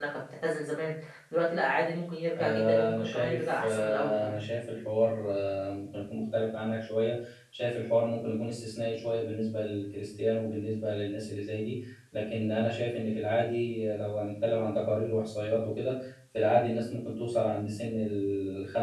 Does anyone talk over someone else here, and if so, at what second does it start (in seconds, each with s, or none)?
2.4 s